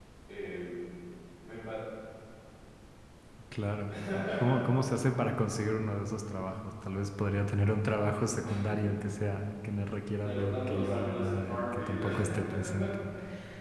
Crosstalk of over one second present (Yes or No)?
Yes